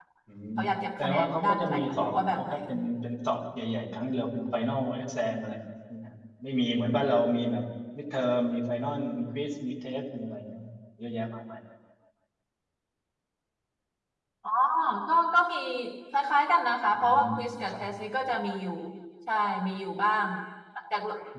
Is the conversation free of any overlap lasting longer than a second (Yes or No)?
No